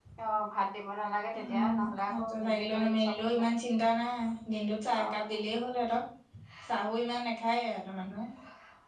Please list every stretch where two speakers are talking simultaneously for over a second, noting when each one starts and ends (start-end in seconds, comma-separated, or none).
2.1-3.4